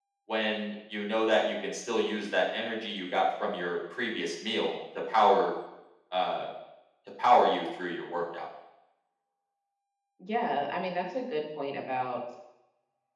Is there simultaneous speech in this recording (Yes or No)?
No